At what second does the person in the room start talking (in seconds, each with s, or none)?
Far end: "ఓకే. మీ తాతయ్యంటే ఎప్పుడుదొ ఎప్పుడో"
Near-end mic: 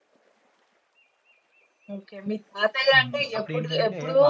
2.9 s